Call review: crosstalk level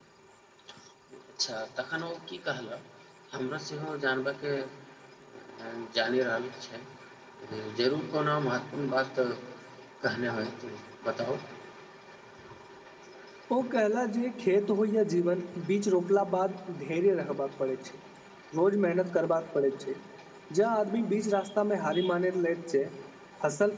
none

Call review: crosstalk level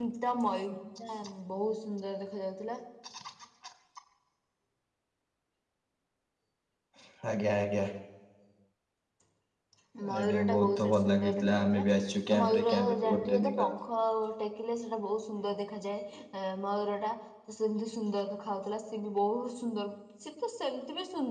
present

